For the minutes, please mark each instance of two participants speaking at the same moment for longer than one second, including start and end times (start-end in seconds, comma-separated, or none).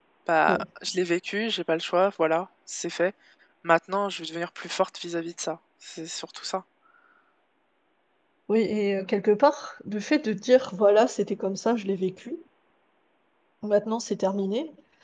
none